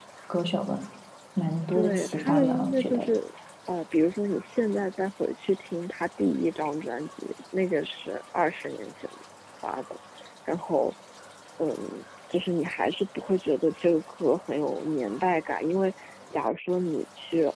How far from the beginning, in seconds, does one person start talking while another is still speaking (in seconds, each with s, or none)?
1.7 s